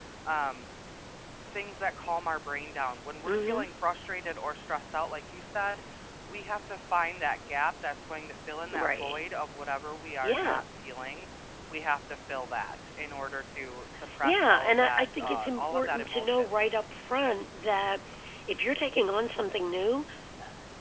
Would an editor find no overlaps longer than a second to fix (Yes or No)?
No